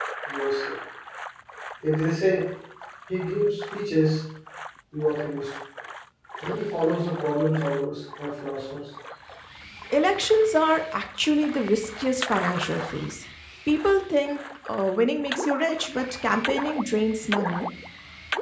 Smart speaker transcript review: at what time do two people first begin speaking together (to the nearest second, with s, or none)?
none